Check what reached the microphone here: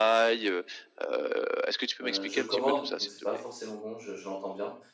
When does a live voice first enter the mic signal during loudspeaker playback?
2.0 s

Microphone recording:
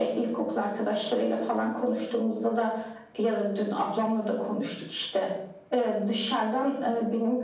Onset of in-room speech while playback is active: none

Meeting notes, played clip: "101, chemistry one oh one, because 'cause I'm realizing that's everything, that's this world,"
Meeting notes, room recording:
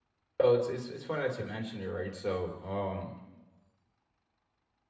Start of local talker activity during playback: 0.4 s

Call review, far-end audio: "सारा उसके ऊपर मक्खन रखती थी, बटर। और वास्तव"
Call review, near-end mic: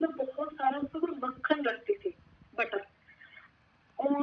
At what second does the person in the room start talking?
none

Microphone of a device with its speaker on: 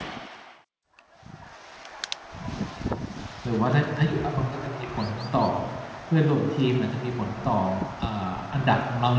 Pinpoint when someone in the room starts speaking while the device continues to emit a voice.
3.4 s

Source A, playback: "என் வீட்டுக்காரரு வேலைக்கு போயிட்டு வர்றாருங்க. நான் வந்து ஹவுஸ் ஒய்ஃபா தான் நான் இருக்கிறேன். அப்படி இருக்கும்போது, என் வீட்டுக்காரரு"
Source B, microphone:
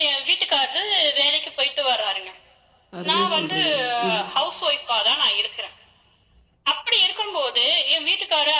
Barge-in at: 3.0 s

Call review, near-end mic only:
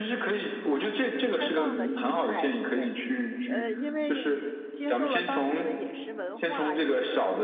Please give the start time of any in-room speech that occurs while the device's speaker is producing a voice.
1.4 s

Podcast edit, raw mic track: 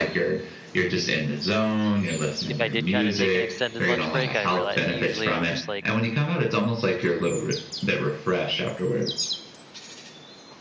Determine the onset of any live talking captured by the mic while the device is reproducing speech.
2.5 s

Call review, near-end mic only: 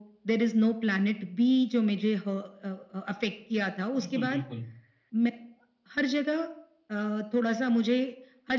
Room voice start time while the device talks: 4.0 s

